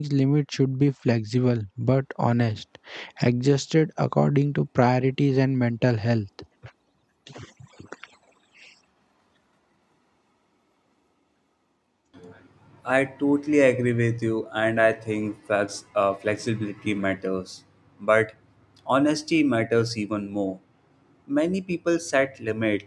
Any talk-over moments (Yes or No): No